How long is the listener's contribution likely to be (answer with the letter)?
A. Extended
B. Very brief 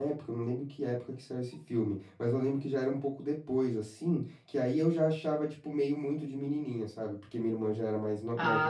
B